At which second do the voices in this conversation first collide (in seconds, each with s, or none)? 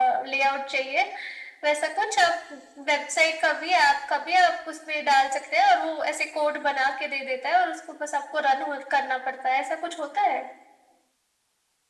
none